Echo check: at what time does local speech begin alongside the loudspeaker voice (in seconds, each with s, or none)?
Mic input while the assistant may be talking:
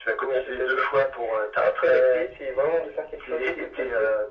none